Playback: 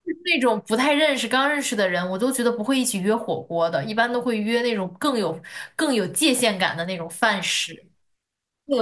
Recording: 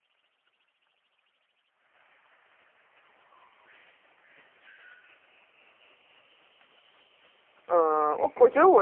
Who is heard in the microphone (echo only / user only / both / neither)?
user only